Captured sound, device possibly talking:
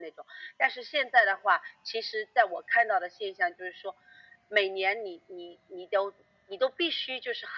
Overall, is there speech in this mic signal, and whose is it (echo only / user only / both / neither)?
echo only